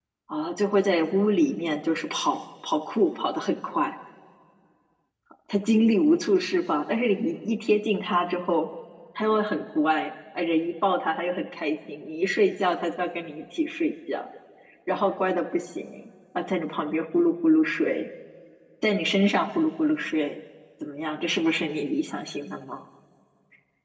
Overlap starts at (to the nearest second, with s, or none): none